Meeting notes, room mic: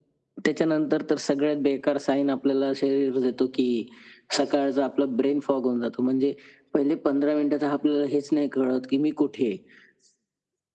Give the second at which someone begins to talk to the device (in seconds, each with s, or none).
none